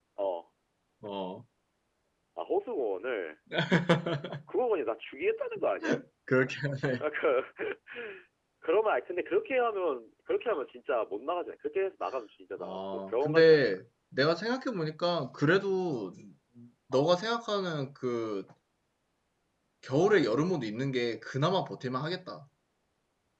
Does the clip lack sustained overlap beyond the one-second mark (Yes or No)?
No